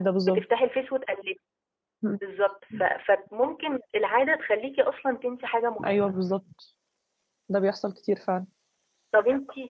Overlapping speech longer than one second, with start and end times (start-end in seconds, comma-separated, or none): none